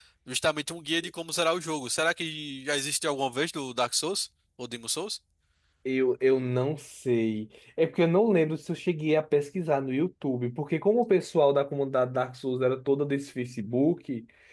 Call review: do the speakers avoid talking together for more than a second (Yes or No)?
Yes